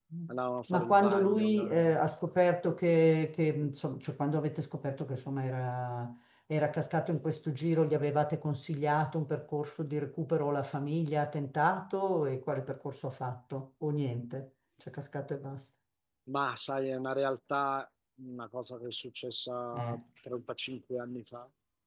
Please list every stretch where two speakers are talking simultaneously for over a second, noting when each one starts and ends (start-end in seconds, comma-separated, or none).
0.7-2.0